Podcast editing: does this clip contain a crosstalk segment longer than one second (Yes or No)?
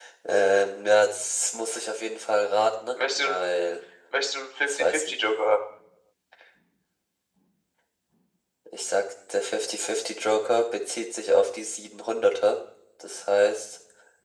No